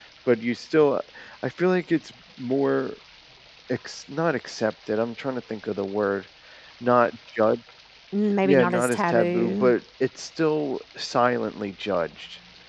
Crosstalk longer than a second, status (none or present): present